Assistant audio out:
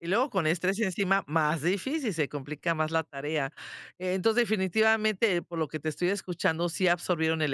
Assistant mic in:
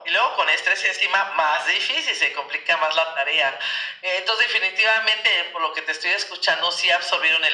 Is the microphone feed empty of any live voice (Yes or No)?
Yes